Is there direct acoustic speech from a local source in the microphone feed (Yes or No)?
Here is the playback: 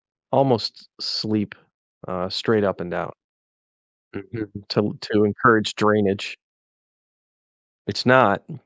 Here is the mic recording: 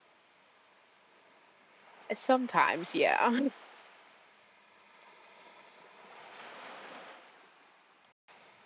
Yes